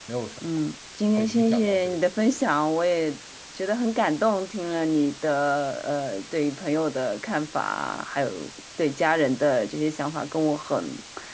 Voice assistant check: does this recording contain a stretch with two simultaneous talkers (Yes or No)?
Yes